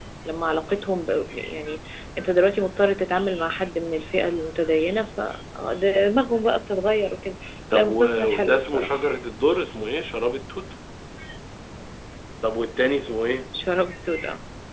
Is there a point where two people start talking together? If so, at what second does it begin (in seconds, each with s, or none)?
7.7 s